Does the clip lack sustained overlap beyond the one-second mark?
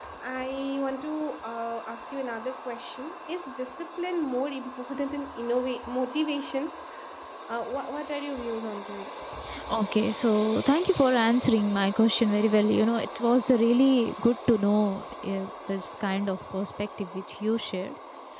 Yes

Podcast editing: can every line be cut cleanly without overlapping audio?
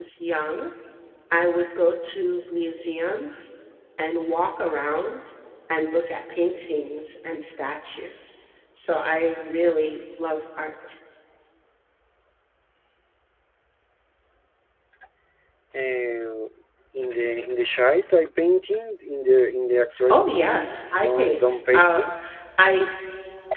No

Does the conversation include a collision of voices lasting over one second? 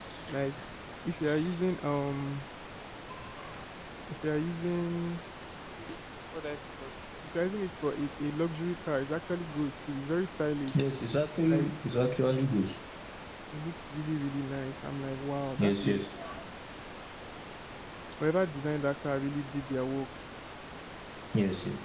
No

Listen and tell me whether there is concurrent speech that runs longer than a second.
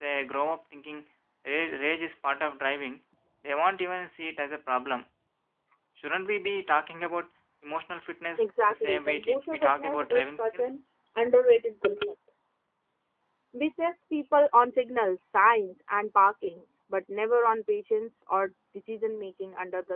Yes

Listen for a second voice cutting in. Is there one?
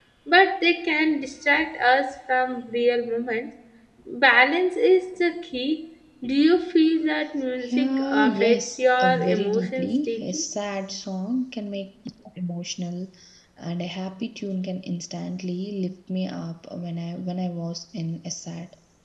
Yes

